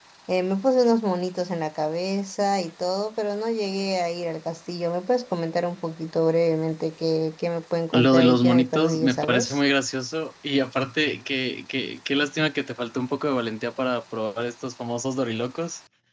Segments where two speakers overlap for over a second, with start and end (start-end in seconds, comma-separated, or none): 7.9-9.6